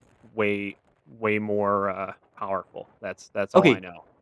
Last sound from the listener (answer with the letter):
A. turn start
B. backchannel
A